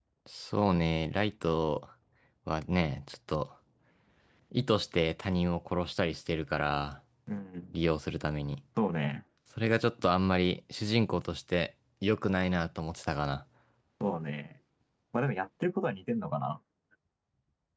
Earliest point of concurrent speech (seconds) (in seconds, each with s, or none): none